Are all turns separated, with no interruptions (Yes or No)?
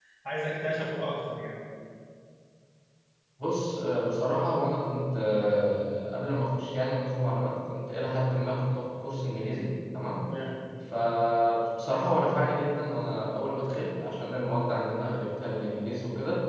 Yes